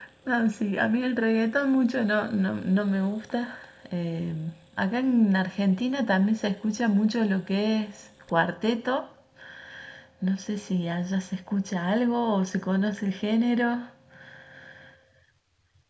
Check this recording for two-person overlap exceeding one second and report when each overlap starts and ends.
none

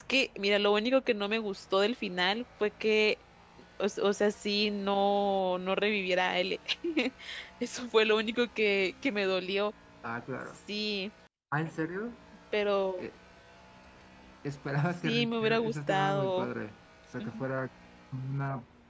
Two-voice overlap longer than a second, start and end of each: 15.0-16.5

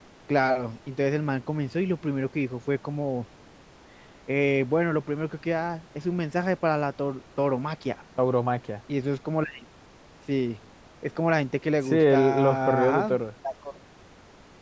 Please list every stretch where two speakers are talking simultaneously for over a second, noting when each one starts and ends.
11.8-13.2

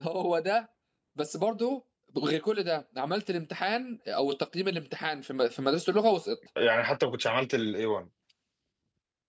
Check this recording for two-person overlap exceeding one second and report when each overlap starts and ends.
none

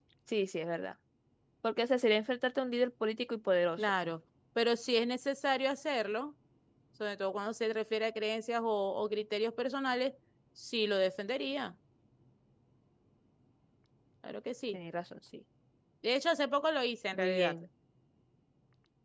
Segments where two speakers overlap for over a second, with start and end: none

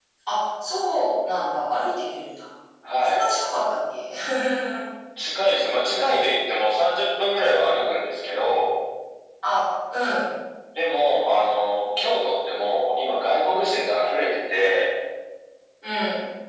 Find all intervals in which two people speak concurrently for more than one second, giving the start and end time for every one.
none

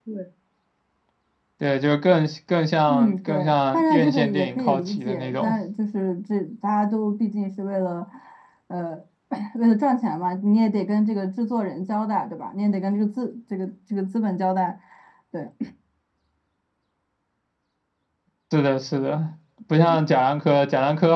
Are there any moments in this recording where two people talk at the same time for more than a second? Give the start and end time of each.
2.9-5.5

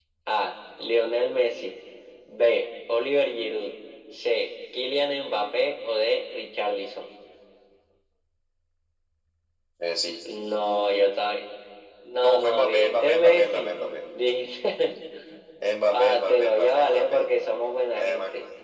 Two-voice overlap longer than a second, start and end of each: 12.2-13.8, 15.9-17.2

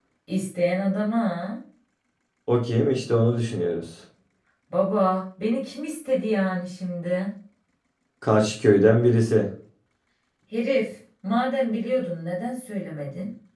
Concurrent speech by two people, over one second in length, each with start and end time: none

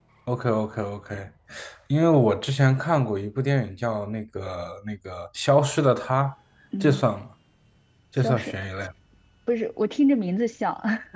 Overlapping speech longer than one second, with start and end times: none

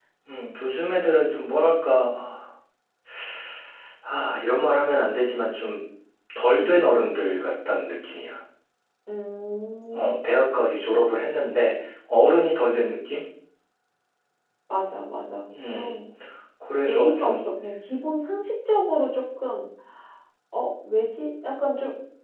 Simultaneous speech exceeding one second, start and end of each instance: none

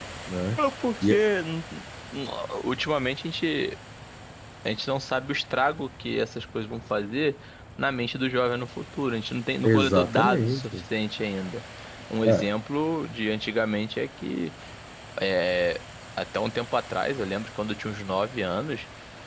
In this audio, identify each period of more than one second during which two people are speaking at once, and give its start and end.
9.6-10.8

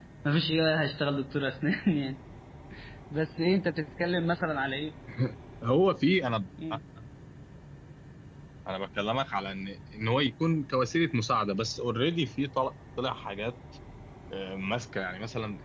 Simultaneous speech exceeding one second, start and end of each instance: none

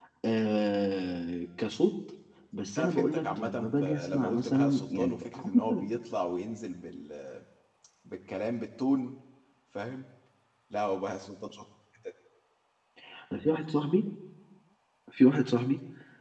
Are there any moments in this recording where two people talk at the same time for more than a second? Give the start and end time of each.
2.8-5.9

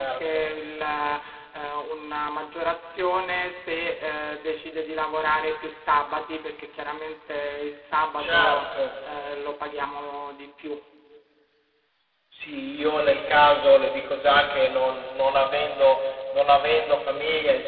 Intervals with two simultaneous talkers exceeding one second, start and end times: none

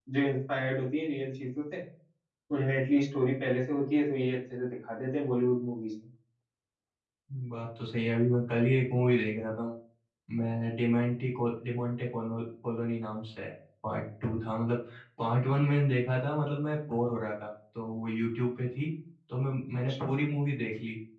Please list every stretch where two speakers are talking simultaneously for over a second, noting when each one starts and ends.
none

